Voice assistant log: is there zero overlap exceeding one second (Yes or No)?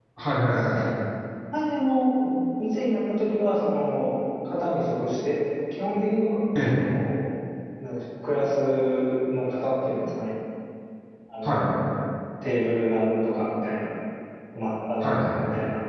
Yes